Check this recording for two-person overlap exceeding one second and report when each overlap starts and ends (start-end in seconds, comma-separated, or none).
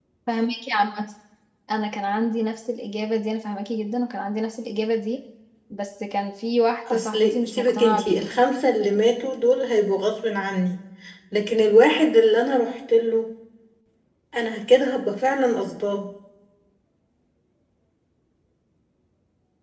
6.9-8.2